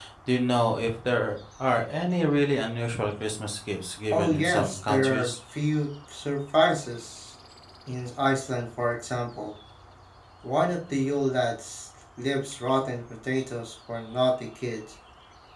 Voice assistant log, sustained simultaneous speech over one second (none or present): present